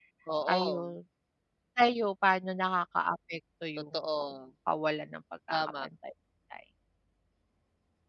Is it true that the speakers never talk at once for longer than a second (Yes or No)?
Yes